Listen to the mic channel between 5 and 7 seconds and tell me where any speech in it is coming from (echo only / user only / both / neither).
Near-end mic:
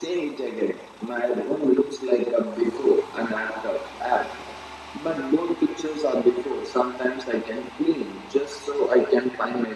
echo only